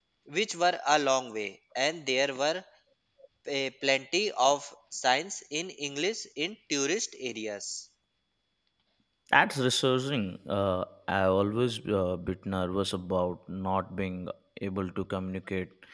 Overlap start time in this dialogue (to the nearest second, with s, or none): none